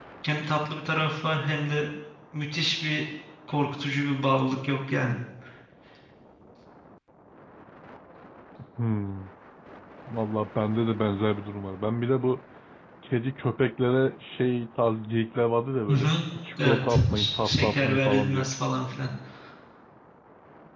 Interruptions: present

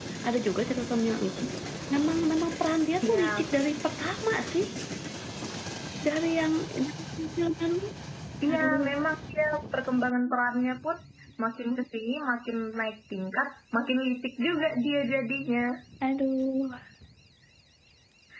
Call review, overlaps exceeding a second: none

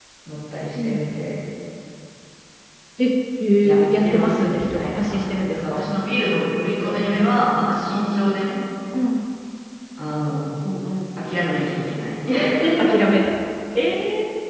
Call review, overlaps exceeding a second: present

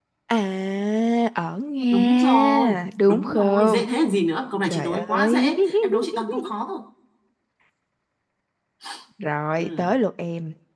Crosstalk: present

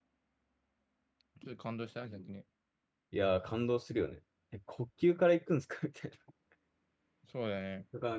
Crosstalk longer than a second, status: none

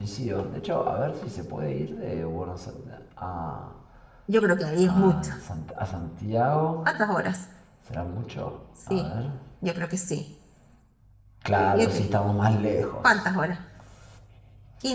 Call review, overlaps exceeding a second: none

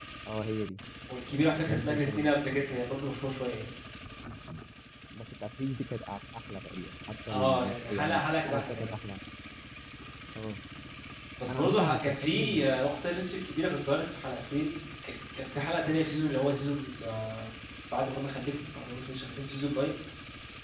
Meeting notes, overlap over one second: present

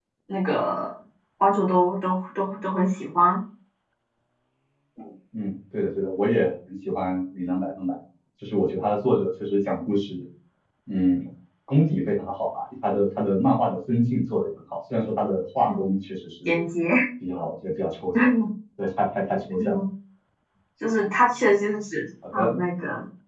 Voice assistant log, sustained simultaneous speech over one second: none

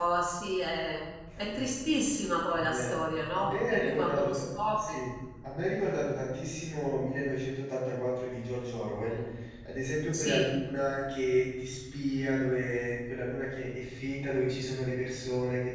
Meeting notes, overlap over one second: present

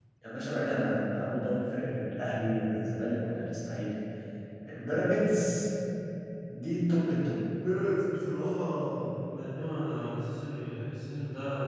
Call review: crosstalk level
none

